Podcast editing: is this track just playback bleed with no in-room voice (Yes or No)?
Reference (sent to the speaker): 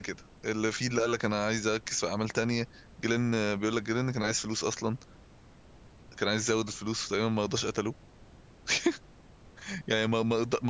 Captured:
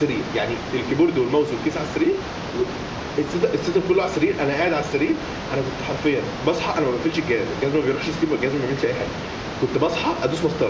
No